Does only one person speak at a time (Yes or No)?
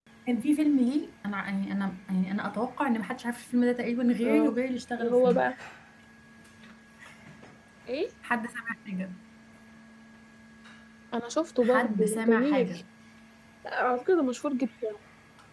No